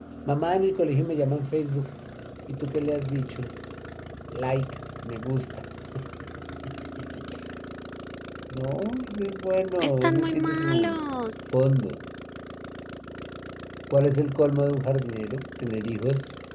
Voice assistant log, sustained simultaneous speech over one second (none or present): present